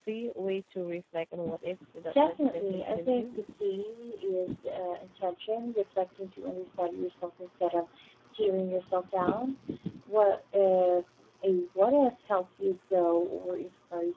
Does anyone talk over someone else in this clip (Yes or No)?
Yes